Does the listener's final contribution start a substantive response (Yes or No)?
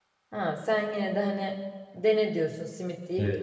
Yes